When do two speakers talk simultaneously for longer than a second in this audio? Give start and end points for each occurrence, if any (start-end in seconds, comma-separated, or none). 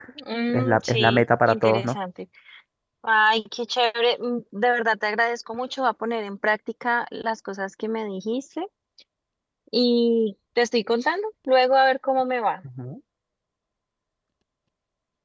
0.5-1.8